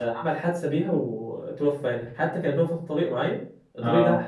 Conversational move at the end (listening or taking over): listening